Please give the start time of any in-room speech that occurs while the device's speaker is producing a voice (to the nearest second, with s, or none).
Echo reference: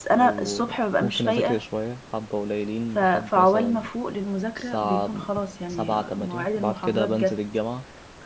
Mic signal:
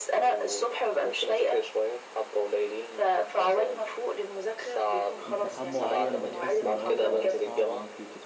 5 s